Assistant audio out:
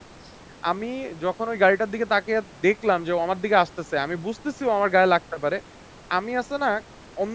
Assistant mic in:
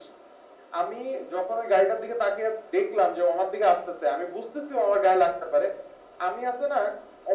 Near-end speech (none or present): none